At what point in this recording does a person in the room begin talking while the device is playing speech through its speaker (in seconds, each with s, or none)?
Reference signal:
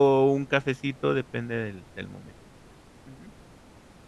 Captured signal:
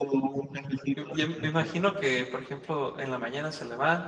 0.9 s